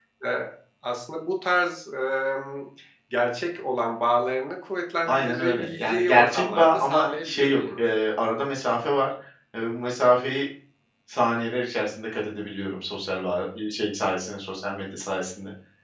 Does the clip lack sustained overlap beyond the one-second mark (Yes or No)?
No